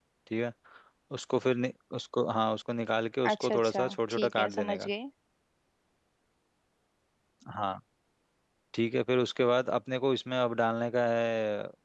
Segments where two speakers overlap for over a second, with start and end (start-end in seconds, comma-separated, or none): 3.3-4.9